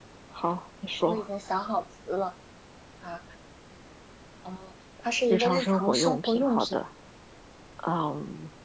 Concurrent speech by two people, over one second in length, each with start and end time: 5.3-6.8

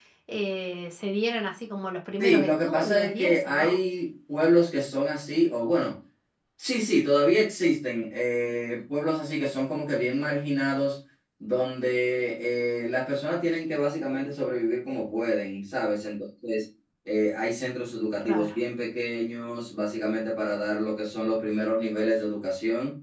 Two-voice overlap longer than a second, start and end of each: 2.2-3.7

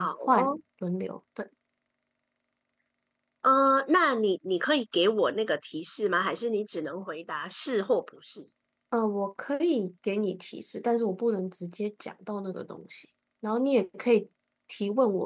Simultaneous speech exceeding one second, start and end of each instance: none

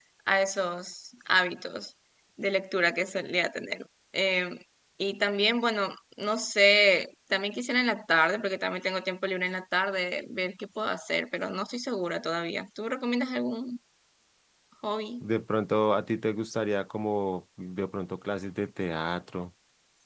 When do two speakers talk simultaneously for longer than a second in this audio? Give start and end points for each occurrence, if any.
none

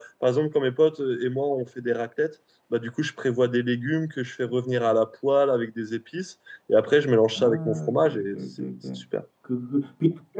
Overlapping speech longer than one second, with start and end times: 7.3-8.7

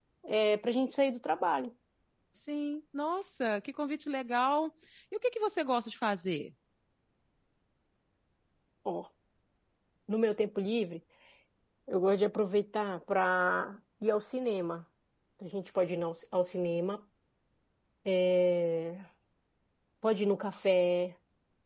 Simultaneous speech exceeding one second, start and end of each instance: none

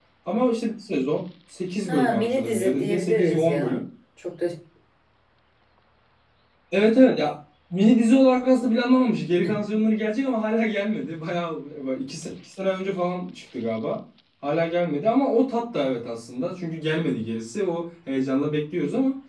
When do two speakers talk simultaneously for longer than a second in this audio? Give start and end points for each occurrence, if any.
1.9-3.8

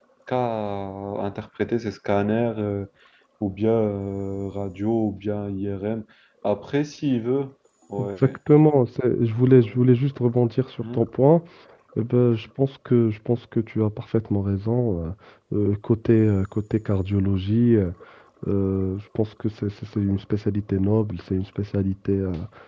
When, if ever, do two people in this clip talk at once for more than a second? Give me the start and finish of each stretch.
none

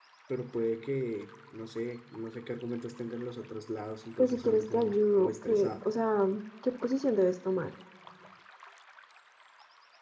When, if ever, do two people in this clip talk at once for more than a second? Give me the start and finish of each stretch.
4.2-5.8

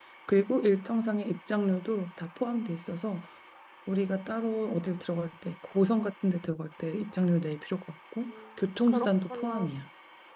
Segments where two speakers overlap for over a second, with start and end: 8.2-9.7

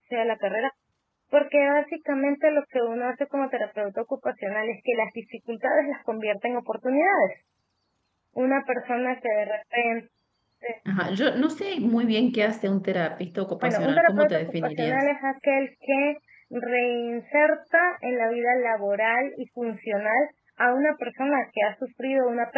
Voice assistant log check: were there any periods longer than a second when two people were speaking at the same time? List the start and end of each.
13.6-15.0

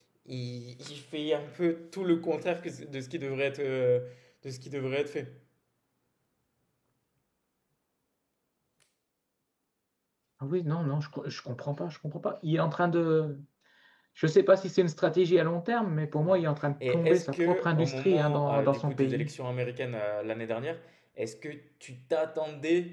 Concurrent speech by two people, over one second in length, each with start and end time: 16.8-19.3

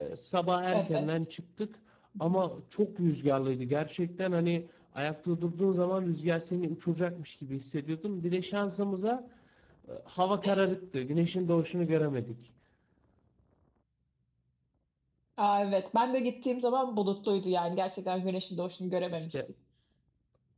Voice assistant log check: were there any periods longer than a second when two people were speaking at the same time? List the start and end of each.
none

